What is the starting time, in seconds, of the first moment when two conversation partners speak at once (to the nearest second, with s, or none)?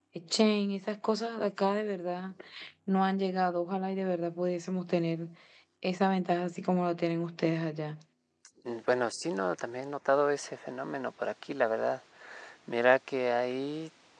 none